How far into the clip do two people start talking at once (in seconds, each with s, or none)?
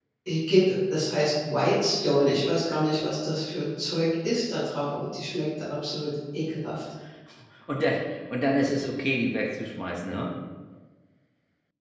none